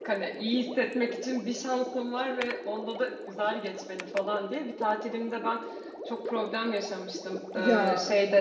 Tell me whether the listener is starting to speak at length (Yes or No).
No